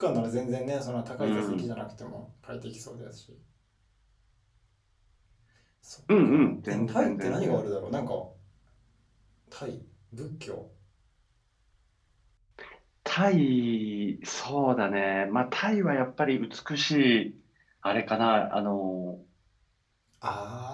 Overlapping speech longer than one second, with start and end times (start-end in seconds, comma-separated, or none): 6.2-7.6